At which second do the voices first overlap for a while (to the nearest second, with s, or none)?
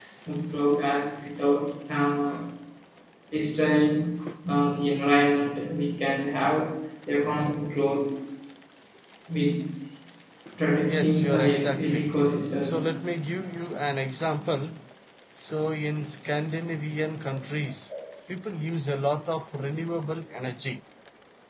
11 s